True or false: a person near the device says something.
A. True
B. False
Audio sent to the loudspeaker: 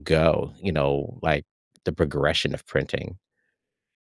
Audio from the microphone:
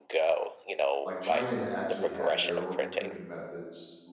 A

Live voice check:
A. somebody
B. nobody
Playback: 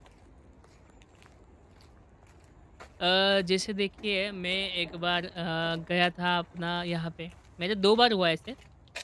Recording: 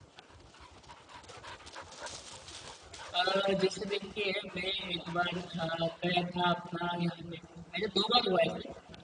B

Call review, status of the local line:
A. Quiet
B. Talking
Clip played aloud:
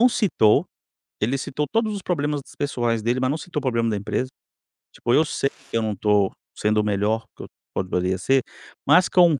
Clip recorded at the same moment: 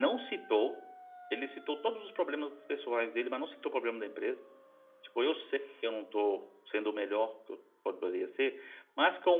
A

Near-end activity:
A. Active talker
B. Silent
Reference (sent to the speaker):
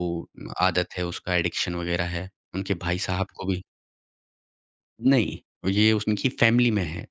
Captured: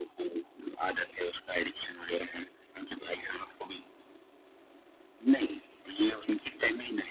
B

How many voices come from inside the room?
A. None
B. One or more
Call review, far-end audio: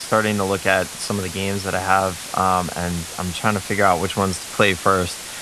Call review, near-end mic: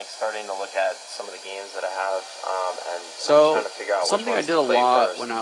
B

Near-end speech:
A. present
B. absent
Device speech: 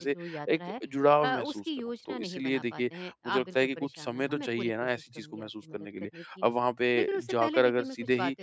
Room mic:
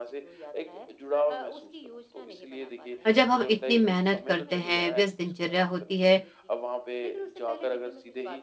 A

